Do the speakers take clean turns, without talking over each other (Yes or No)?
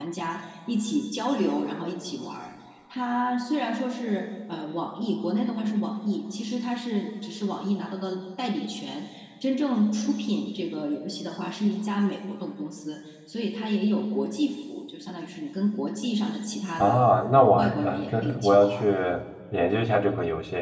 No